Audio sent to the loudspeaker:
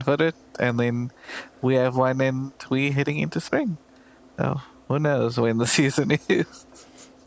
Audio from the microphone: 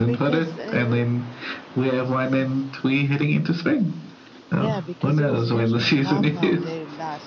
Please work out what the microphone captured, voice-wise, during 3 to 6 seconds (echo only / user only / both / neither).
both